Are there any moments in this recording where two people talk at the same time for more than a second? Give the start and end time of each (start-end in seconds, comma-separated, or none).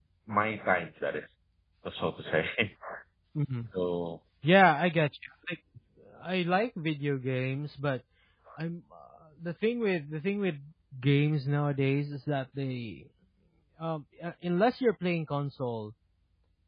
none